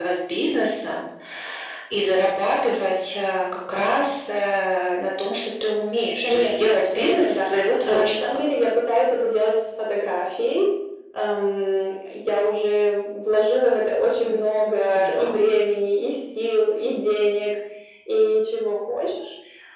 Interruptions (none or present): present